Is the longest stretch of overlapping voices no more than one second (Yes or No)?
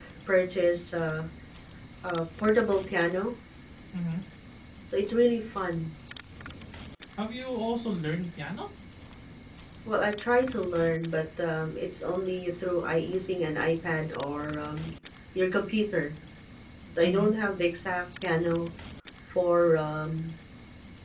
Yes